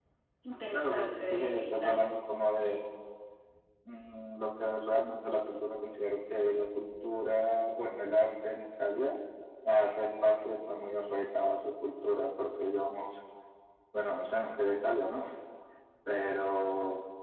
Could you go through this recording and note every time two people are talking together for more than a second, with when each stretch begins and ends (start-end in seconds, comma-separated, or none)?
0.7-2.1